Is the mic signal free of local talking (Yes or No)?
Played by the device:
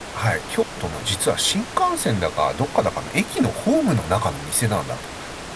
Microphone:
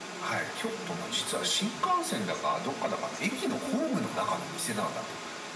No